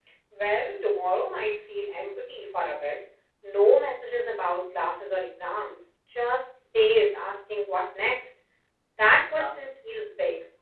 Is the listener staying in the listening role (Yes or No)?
Yes